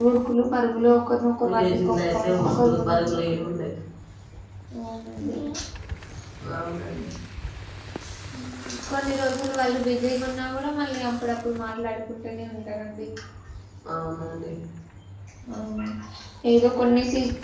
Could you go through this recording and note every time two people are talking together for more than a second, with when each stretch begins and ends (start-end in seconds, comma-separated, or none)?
1.4-3.4